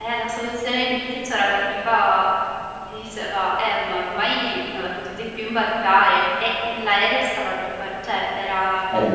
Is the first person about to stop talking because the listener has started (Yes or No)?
Yes